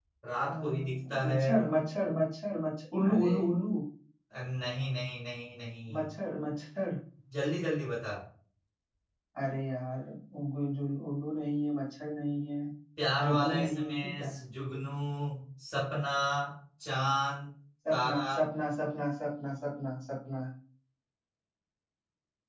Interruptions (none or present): present